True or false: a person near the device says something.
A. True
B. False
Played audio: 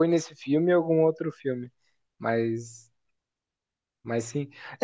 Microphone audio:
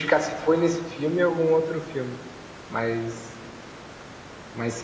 B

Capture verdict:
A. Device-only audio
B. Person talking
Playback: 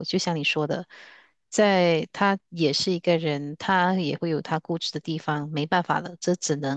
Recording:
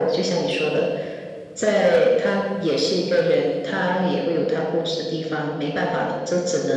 A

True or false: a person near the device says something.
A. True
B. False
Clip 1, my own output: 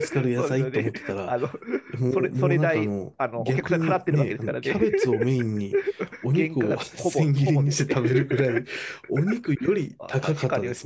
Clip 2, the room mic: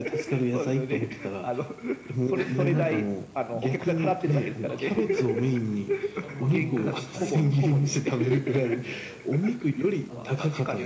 A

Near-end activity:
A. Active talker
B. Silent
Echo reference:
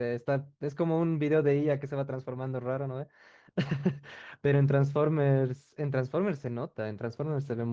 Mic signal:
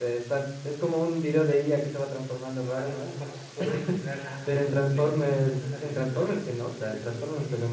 A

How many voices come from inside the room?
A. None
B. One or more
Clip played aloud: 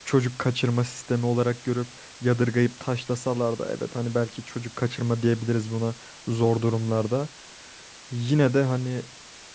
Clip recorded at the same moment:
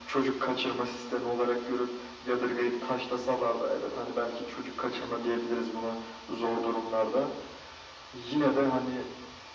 A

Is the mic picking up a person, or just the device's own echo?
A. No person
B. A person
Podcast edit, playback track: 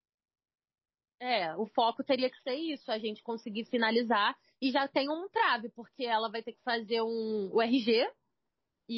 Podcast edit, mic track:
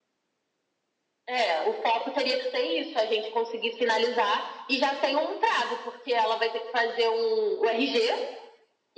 A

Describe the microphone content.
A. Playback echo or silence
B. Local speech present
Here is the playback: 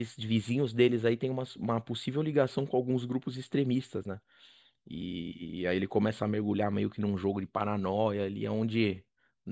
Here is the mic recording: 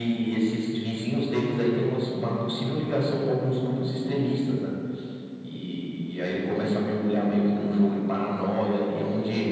A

